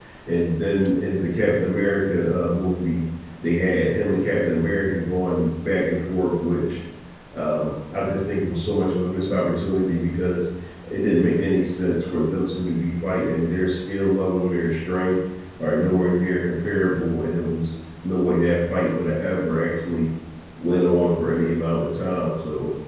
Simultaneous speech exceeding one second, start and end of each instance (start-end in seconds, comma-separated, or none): none